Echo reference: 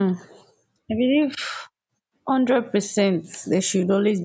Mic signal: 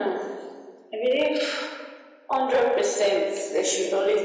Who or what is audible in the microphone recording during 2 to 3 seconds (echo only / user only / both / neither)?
echo only